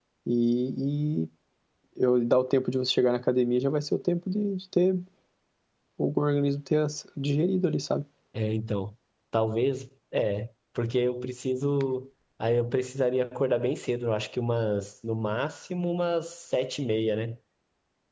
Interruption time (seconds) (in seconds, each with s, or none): none